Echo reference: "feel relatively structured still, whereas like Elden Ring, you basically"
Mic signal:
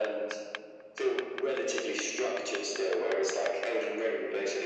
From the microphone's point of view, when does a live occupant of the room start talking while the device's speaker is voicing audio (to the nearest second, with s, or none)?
none